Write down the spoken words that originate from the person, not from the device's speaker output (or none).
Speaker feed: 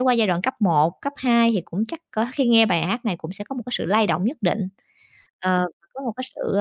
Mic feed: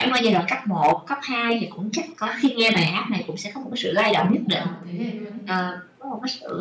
của cả một thế hệ luôn ấy?